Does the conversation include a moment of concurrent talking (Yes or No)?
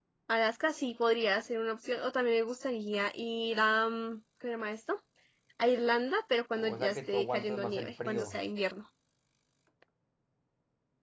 Yes